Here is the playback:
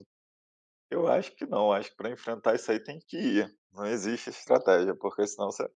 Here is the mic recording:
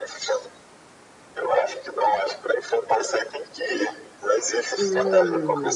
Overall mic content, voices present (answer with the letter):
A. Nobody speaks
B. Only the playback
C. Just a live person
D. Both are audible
D